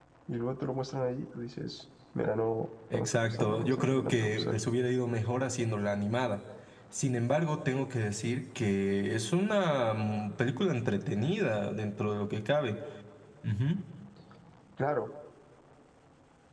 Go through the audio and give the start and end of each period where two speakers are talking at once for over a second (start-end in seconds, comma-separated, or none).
2.9-4.6